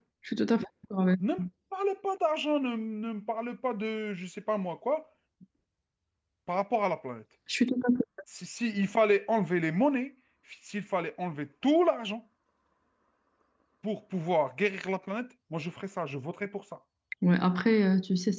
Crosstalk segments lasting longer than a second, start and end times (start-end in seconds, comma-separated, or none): none